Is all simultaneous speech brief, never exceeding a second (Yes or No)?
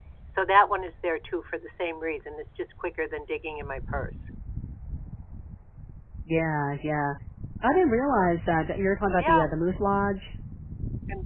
Yes